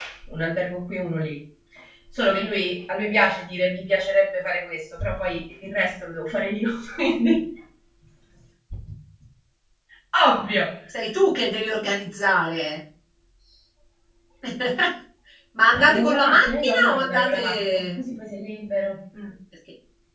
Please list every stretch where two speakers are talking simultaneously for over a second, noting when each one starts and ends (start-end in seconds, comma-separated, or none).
15.7-18.0